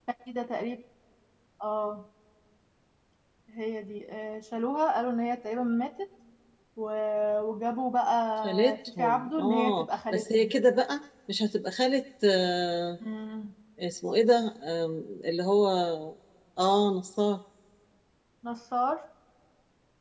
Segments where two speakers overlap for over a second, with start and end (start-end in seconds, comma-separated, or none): 8.4-10.5